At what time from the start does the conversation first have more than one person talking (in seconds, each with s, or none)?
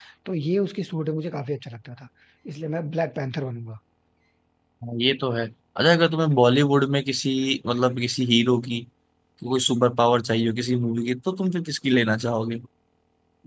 none